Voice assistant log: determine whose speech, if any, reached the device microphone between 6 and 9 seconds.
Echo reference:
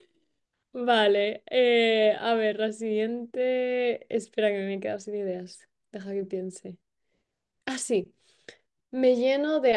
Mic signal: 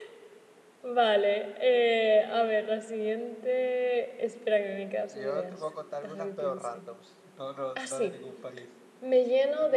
both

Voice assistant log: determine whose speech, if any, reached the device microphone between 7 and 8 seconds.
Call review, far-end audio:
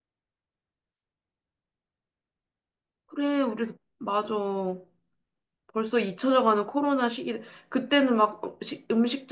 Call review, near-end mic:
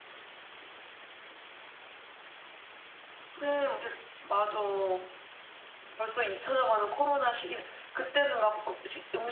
echo only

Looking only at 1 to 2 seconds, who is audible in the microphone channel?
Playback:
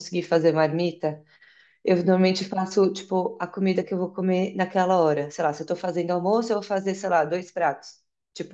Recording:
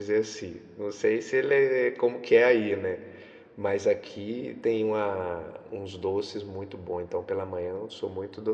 user only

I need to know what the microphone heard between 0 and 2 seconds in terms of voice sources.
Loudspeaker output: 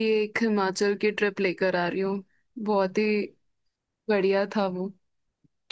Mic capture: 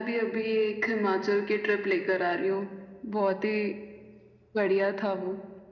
echo only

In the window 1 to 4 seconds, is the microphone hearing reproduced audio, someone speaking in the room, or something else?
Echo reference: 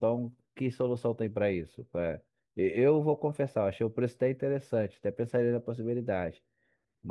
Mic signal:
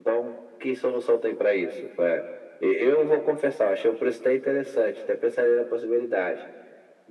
echo only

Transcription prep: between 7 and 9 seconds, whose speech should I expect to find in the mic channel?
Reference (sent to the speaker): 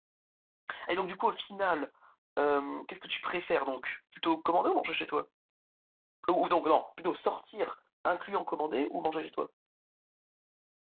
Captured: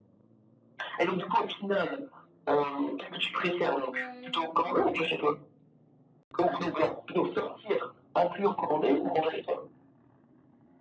echo only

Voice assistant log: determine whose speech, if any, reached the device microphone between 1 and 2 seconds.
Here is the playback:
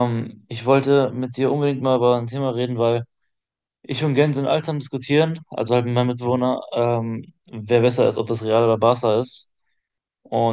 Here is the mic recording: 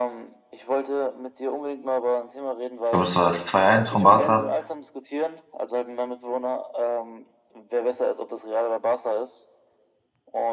echo only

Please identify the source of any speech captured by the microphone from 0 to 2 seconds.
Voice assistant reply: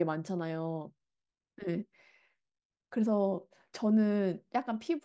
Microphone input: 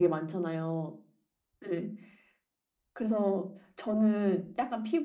echo only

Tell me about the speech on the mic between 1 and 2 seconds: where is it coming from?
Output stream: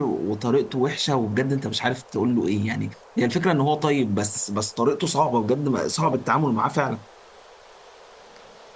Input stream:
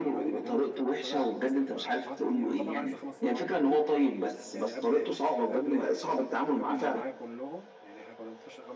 both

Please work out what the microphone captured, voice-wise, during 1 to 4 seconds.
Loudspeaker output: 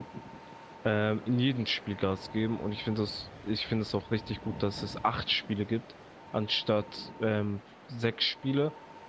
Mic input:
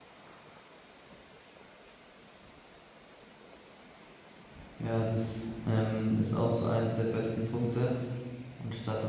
neither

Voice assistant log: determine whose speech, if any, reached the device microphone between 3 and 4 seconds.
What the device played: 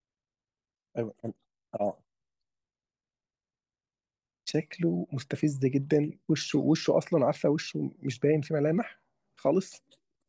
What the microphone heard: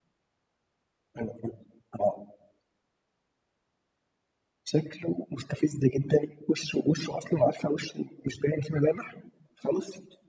neither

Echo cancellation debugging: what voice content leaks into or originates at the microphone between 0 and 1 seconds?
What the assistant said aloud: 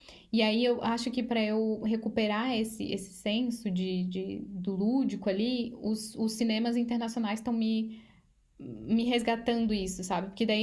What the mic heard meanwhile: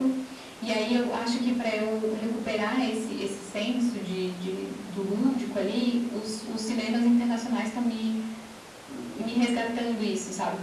echo only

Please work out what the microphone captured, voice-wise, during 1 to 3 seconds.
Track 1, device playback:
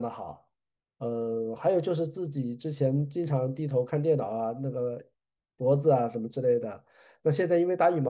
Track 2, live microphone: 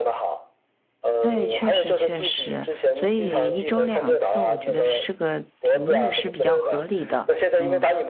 both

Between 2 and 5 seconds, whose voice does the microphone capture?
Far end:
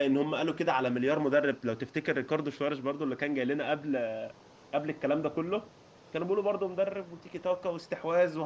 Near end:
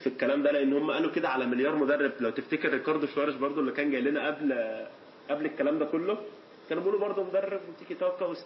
echo only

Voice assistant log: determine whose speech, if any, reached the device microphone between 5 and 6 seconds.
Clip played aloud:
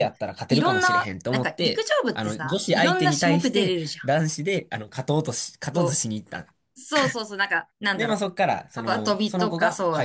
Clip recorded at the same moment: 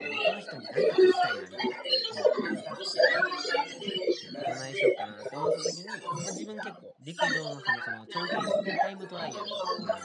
both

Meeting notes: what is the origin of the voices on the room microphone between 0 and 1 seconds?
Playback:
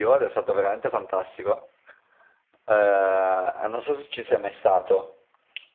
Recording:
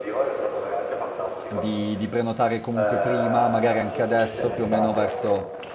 echo only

